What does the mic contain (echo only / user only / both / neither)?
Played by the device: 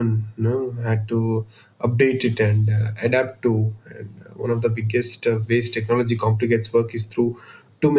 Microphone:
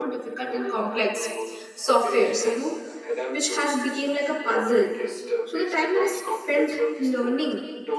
both